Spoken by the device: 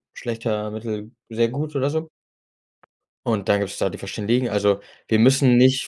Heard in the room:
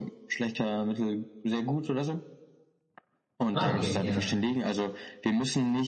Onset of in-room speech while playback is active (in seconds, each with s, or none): 3.5 s